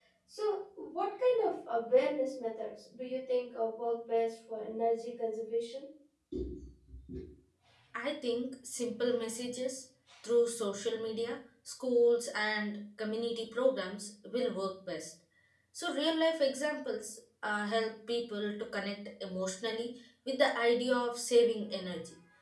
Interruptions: none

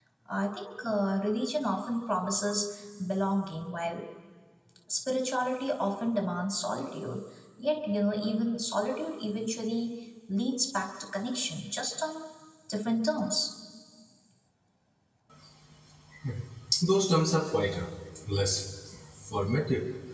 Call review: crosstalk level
none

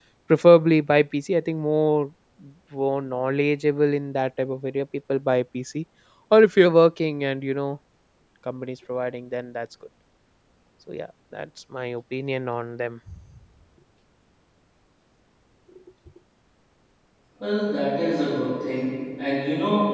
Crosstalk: none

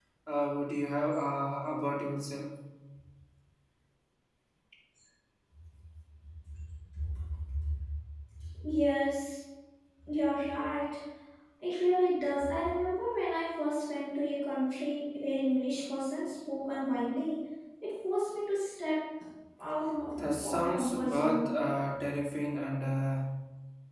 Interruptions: present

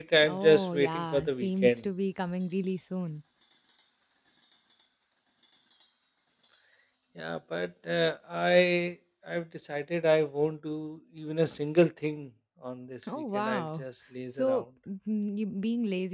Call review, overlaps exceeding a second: present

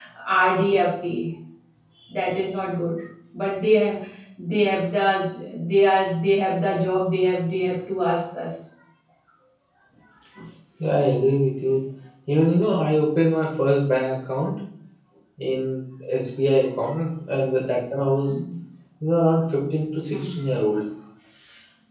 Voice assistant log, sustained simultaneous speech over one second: none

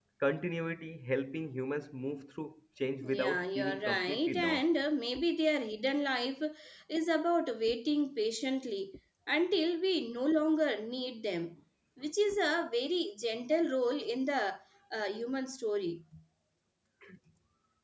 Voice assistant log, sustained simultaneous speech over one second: present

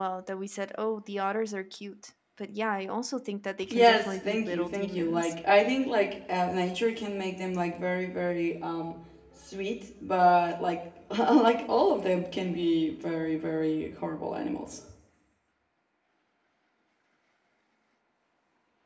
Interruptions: present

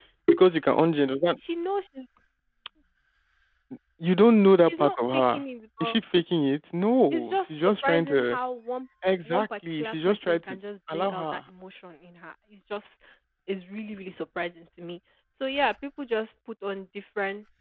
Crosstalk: present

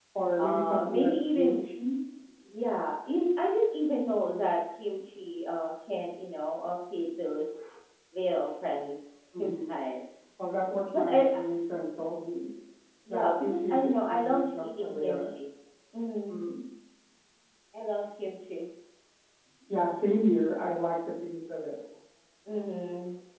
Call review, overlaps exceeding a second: present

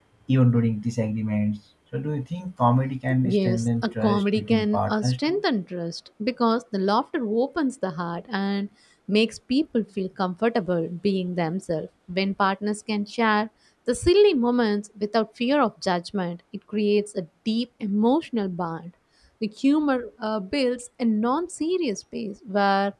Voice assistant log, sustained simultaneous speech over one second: present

